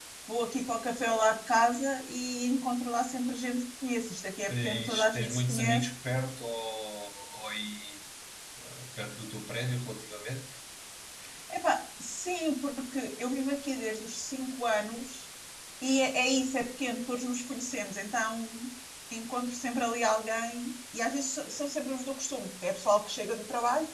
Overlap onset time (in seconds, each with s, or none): 4.5 s